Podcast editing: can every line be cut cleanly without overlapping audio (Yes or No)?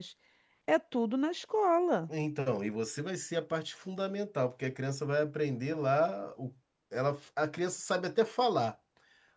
Yes